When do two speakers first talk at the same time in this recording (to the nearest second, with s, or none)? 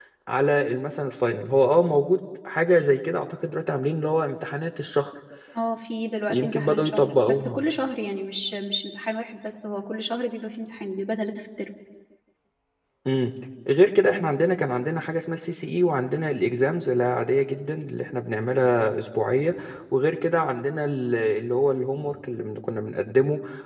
6 s